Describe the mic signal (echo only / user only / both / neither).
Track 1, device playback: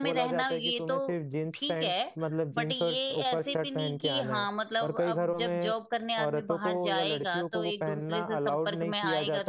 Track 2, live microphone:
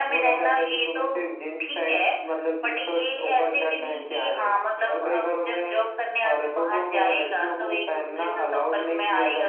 echo only